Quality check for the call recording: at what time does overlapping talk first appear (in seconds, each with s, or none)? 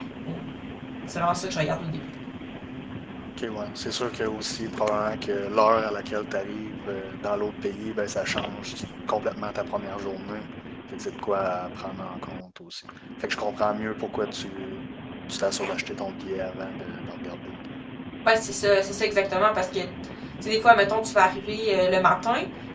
none